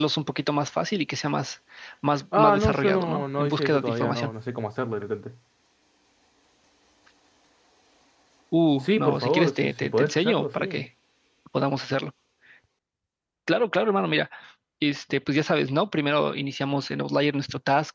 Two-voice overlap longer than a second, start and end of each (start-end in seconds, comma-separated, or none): 2.4-4.3, 8.8-10.8